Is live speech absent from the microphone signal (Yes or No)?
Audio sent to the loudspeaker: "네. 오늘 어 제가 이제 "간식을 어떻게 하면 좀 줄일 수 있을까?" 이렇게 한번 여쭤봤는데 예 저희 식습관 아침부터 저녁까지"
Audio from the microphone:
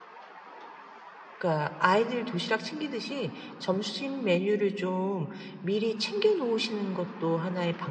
No